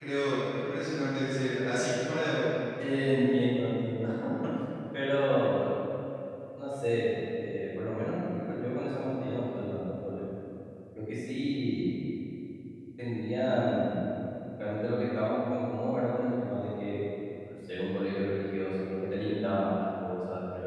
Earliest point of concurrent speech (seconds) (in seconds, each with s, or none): none